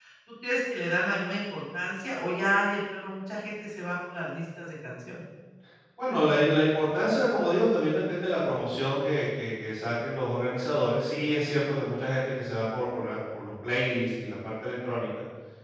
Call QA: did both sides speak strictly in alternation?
Yes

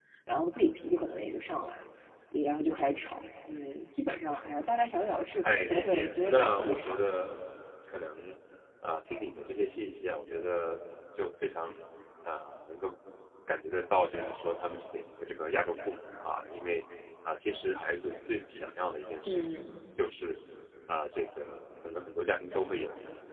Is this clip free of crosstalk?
No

